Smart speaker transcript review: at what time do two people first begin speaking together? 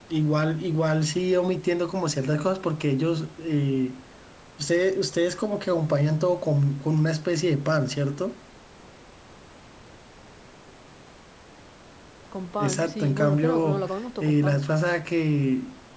12.6 s

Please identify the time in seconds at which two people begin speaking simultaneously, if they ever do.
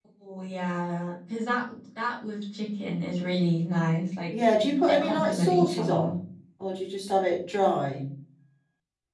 4.6 s

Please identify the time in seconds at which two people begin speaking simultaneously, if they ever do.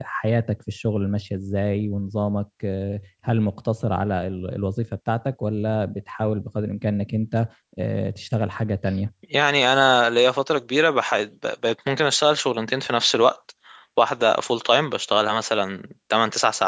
none

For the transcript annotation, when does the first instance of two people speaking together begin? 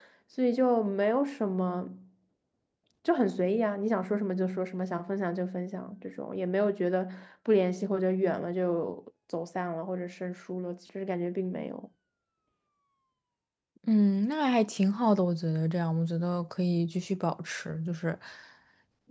none

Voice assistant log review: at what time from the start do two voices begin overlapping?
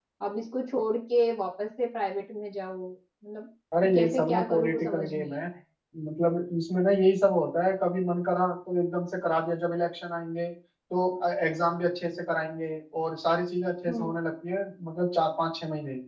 3.9 s

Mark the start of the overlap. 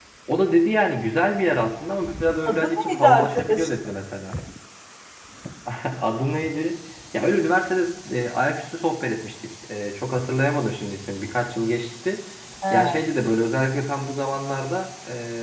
2.5 s

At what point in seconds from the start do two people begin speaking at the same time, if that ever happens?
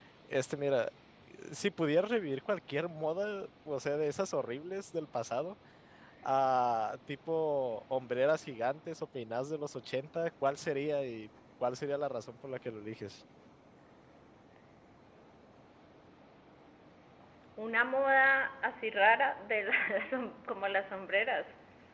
none

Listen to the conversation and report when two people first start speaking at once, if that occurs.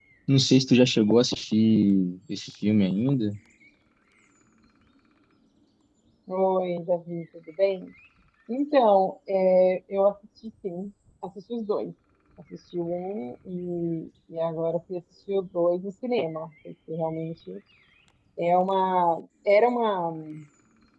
none

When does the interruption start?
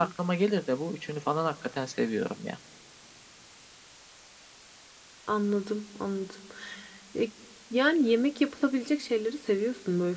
none

